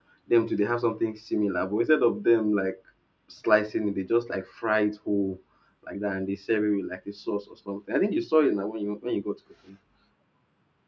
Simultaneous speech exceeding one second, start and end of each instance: none

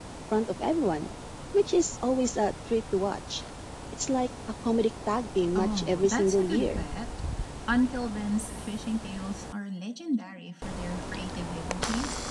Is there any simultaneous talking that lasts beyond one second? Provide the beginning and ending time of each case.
5.5-6.8

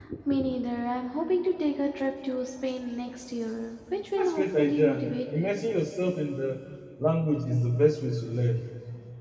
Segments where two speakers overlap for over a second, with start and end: 4.2-5.5

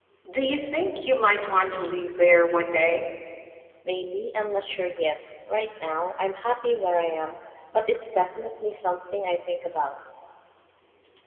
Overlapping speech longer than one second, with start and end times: none

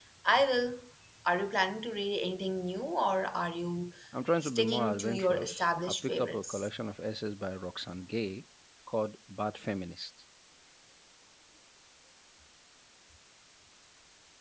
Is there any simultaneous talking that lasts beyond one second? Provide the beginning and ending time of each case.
4.4-6.7

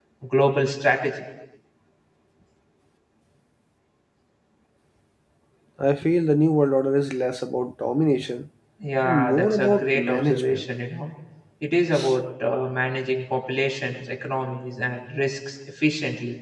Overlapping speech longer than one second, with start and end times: 9.0-10.6

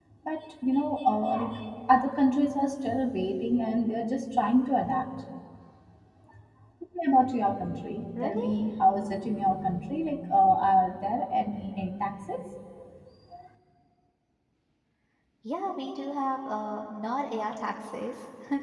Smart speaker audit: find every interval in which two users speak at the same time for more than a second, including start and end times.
none

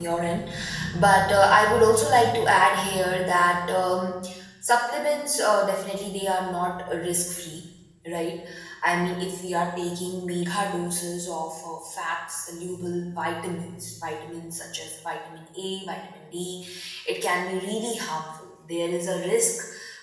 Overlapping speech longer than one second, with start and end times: none

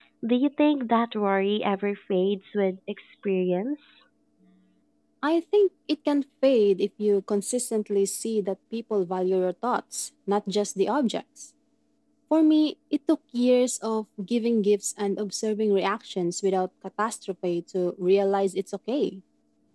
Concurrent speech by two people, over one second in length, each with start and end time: none

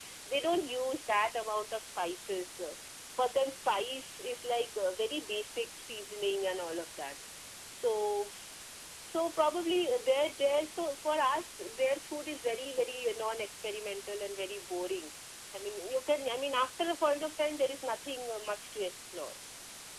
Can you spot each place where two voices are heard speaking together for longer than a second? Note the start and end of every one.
none

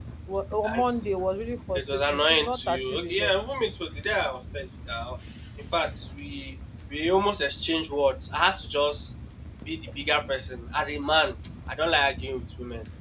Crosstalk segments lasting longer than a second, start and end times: 1.8-3.3

